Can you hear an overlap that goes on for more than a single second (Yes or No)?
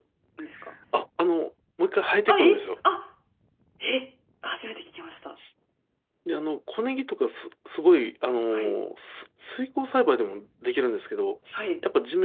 No